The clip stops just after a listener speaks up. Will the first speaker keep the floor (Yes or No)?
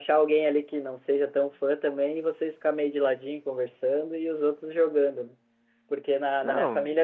Yes